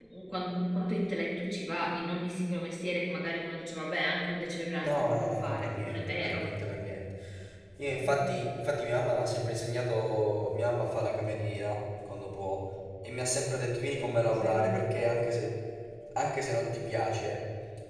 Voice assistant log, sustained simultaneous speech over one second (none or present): present